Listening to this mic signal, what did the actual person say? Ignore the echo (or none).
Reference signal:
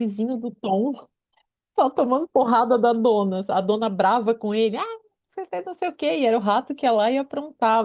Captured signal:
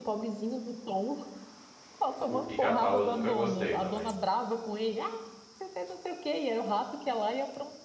O pica-pau eu nunca gostei também.